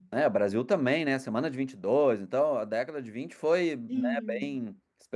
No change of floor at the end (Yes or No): Yes